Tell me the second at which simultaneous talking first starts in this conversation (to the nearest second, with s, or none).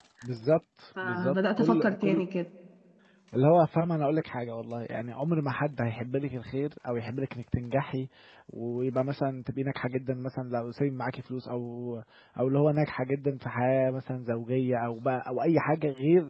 1 s